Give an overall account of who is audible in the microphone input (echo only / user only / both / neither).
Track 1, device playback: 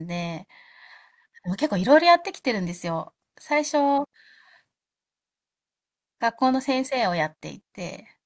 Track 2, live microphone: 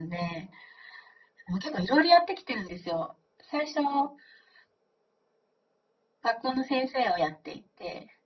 echo only